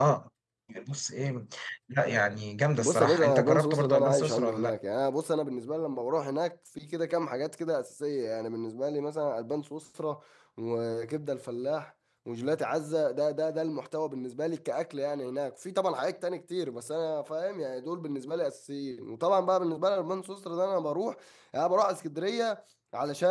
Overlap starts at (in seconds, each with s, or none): 2.8 s